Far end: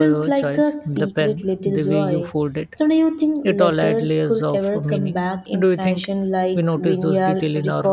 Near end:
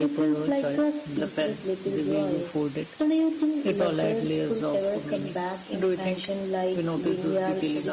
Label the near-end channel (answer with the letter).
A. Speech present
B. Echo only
B